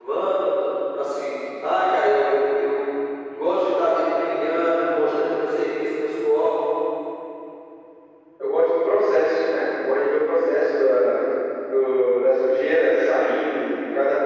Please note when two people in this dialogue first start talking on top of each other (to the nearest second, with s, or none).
none